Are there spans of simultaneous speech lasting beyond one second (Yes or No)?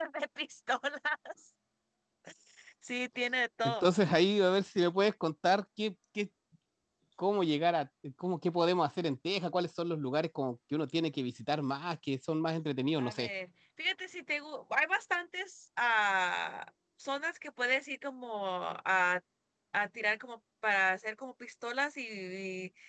No